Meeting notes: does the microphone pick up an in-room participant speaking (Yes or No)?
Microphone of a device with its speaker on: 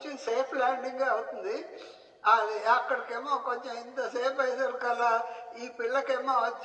No